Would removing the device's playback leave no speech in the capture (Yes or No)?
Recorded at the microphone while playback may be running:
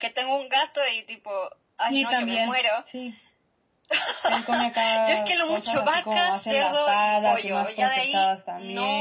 Yes